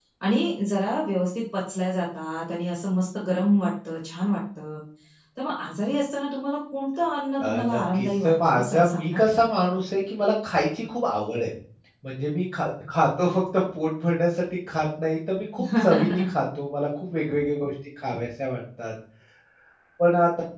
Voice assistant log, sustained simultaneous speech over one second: present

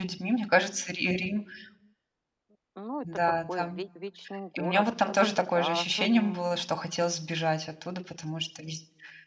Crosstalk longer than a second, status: present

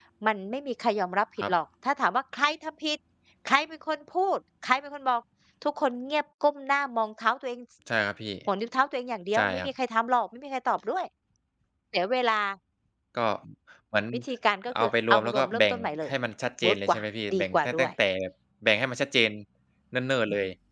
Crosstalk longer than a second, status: present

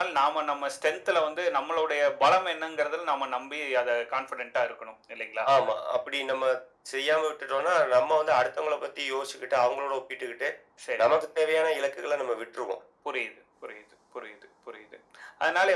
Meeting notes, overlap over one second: none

